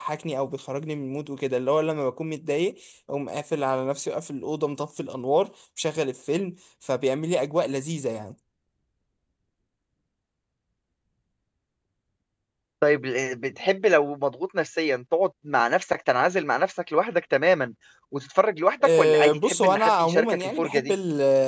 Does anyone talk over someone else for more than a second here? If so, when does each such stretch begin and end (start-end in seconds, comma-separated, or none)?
18.8-20.9